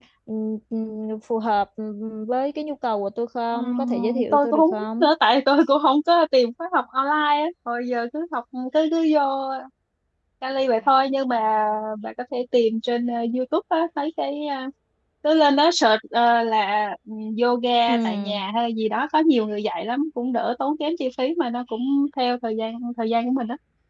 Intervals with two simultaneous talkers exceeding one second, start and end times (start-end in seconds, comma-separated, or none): 3.5-5.1